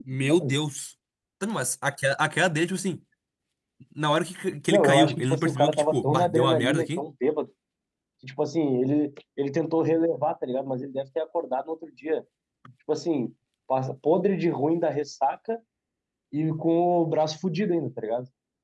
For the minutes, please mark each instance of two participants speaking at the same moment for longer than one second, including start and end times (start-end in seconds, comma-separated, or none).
4.7-7.0